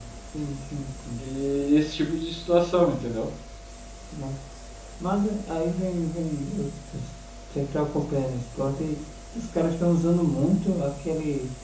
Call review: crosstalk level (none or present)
none